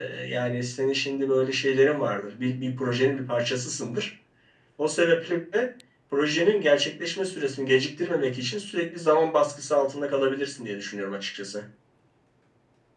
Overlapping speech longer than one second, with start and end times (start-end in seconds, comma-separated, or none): none